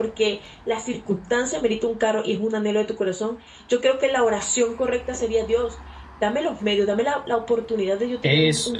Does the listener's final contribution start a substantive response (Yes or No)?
No